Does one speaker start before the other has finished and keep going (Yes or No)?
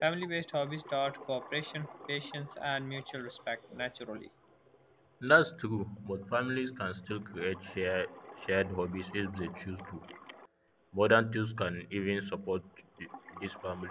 No